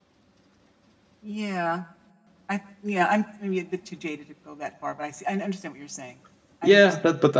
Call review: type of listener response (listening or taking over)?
taking over